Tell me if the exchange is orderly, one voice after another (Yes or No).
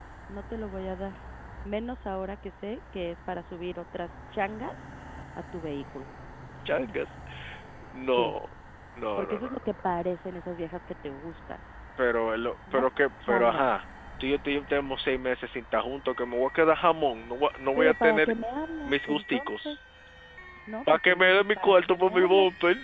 No